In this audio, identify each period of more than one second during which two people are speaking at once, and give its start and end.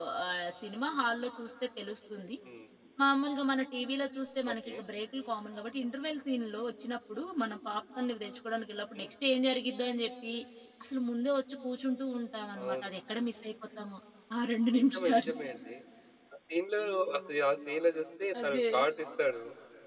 none

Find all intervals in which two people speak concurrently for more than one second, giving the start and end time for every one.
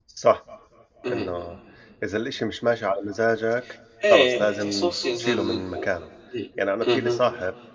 4.1-5.6

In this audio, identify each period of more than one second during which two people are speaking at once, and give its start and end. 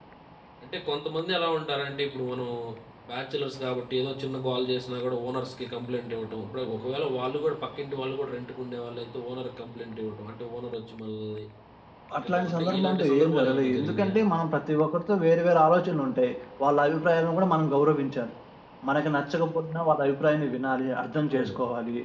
12.2-14.2

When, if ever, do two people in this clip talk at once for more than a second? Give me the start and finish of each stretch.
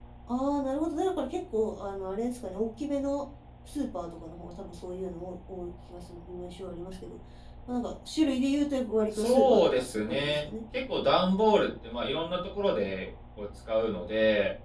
9.1-10.4

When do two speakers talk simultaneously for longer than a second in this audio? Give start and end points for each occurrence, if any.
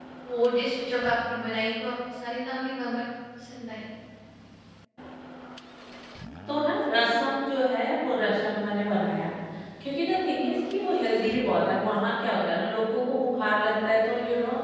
none

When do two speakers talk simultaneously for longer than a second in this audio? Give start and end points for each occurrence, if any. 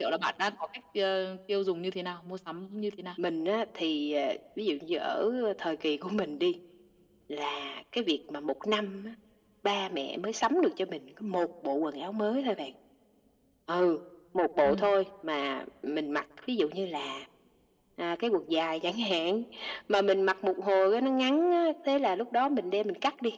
none

